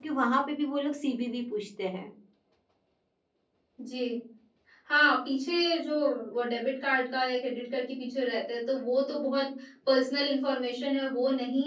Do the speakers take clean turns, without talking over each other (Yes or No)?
Yes